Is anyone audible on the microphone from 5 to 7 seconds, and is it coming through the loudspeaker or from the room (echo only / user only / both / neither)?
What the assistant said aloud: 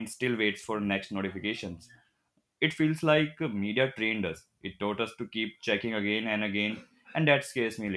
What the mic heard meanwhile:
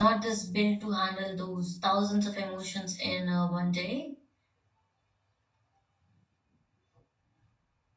neither